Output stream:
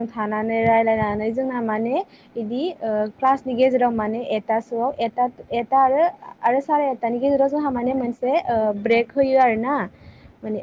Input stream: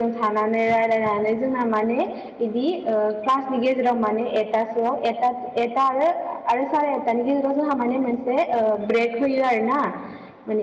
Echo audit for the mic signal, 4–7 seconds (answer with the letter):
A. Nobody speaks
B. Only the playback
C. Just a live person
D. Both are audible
B